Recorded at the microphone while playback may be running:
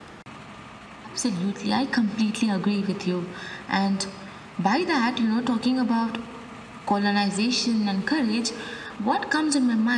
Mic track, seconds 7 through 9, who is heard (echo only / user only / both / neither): echo only